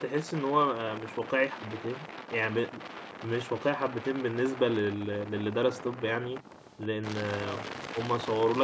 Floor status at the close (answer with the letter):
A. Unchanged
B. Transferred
A